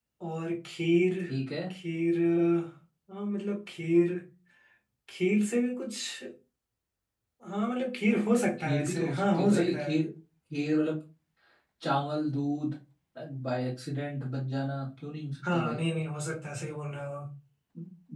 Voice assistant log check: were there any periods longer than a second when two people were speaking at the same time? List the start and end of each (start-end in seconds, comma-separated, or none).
8.6-10.0